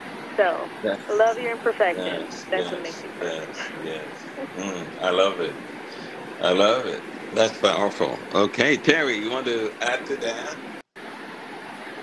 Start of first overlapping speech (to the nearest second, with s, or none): 2 s